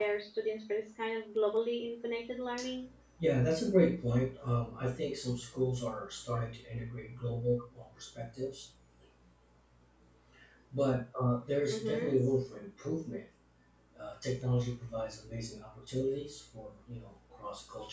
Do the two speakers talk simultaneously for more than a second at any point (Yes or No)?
No